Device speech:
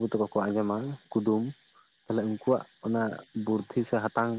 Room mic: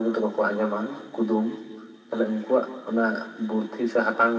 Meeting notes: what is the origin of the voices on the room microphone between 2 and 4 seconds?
echo only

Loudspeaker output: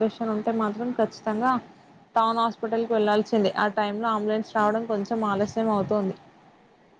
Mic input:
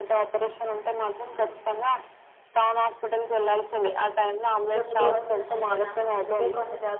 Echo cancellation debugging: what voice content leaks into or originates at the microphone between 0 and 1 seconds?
echo only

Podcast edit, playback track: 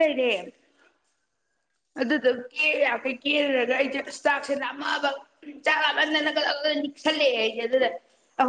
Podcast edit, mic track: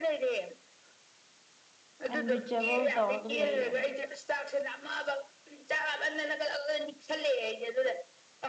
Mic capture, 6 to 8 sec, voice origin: echo only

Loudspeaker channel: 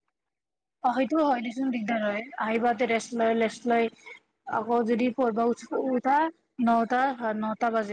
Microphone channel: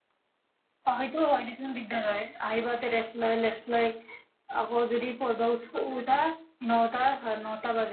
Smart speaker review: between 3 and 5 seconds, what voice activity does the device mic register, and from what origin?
echo only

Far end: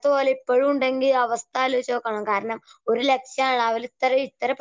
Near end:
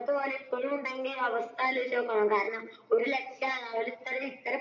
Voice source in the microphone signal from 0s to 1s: echo only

